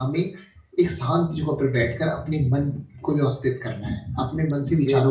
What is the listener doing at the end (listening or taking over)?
listening